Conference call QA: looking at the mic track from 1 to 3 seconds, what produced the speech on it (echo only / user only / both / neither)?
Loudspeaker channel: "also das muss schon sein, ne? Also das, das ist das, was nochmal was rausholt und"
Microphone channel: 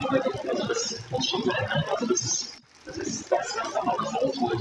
echo only